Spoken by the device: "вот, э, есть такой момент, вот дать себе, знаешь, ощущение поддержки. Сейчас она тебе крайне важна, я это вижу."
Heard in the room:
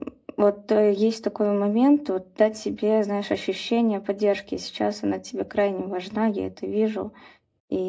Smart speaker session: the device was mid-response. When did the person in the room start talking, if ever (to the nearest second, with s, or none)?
none